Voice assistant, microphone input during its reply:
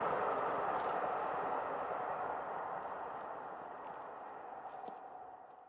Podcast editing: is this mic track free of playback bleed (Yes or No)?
Yes